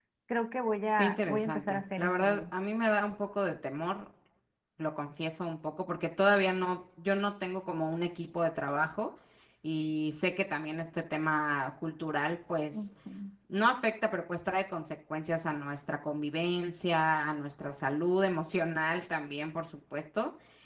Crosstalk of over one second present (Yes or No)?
Yes